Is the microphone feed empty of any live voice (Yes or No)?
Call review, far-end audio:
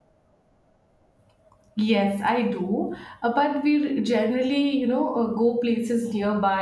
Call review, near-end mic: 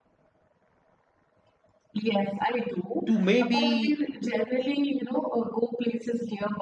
No